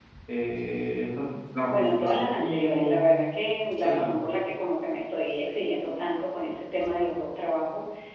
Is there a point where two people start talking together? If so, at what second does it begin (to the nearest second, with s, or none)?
2 s